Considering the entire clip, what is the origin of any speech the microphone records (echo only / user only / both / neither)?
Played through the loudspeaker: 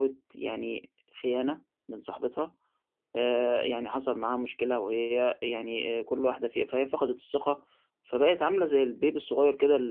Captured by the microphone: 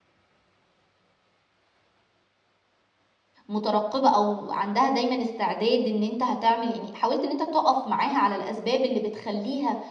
user only